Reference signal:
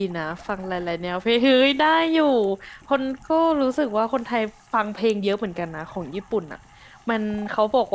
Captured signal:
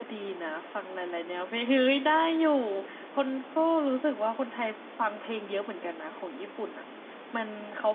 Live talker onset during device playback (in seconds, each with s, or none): none